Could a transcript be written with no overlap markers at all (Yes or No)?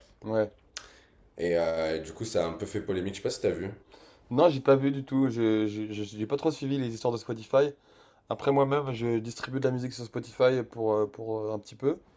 Yes